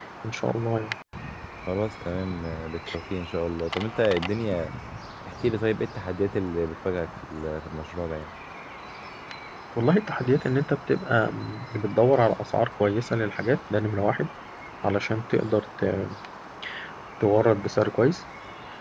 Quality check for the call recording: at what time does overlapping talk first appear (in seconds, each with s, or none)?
none